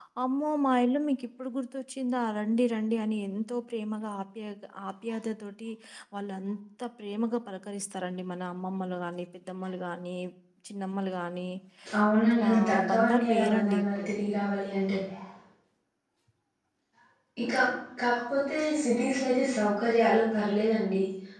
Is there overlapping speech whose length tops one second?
Yes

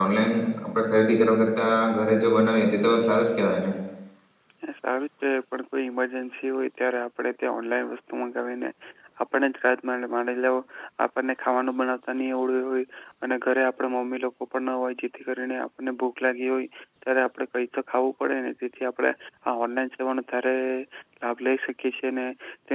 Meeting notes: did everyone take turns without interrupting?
Yes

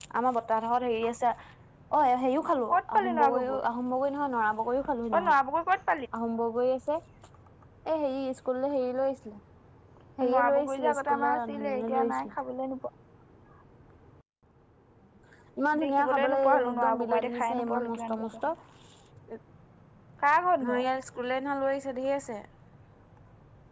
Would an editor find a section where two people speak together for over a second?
Yes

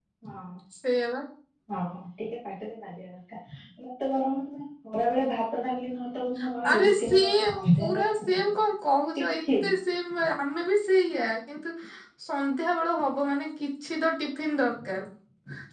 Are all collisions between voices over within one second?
No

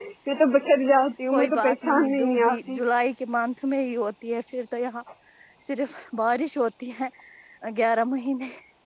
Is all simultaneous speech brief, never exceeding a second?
No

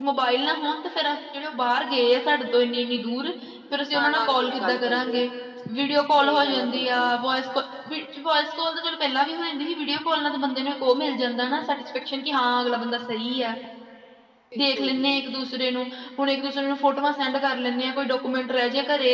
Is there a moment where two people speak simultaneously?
Yes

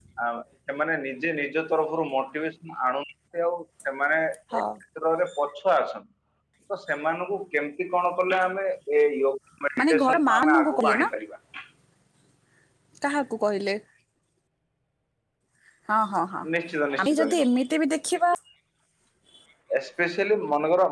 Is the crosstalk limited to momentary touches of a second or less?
No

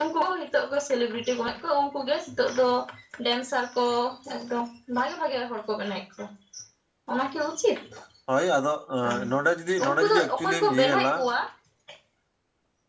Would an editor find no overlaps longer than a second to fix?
No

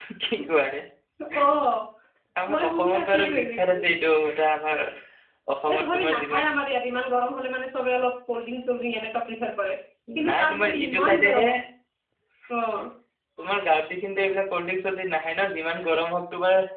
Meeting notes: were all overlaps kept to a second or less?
No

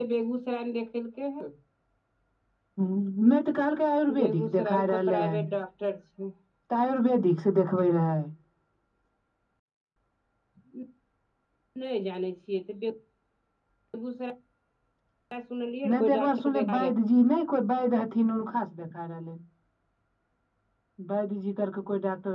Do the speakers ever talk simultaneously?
Yes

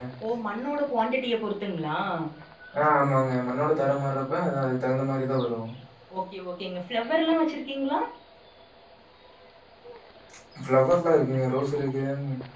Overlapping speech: No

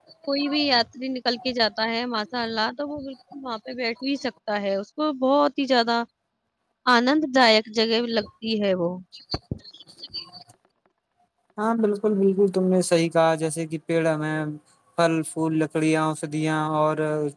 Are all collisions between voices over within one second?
Yes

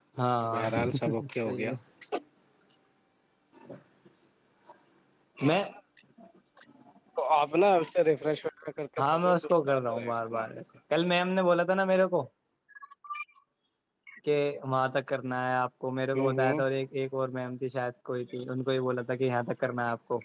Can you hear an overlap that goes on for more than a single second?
Yes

